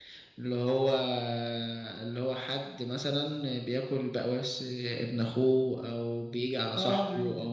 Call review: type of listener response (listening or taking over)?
taking over